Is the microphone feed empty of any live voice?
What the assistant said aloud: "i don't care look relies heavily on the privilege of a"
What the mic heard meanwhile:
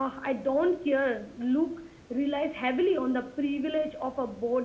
Yes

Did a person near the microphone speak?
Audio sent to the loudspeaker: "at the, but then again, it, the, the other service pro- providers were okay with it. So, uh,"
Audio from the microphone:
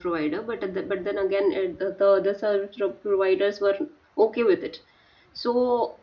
No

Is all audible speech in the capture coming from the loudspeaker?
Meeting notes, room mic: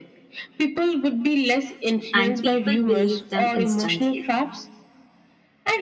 No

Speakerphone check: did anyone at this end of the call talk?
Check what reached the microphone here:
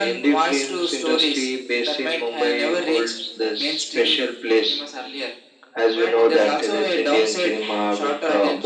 No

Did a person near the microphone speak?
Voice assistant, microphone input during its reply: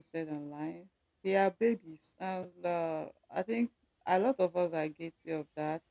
Yes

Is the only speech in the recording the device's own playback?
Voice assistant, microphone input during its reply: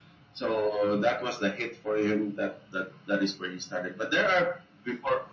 Yes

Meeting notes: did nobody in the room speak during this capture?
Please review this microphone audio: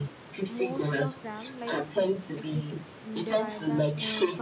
No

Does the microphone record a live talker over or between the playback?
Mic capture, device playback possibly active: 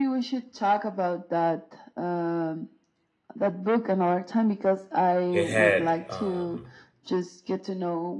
Yes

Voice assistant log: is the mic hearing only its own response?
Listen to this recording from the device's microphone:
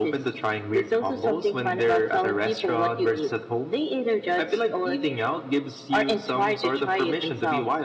Yes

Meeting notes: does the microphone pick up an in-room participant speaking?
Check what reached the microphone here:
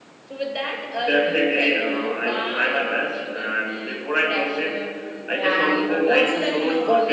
Yes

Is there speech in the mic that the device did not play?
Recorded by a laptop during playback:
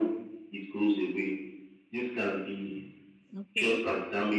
Yes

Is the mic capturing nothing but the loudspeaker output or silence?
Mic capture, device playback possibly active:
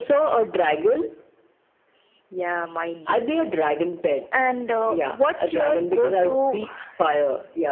Yes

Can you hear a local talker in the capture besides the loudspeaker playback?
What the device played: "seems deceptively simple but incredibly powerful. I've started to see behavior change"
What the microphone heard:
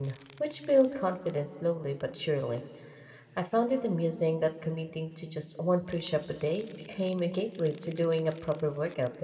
Yes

